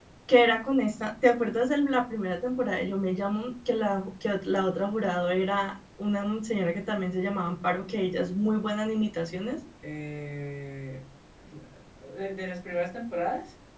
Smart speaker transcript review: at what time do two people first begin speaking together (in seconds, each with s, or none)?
none